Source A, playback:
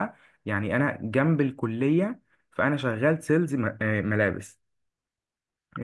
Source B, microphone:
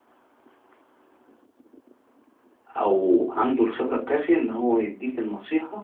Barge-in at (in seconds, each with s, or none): 2.8 s